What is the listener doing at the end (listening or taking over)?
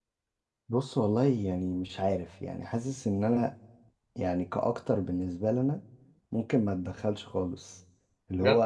listening